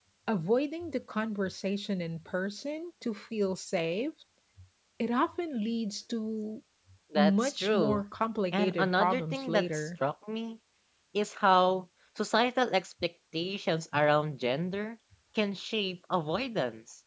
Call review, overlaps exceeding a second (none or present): present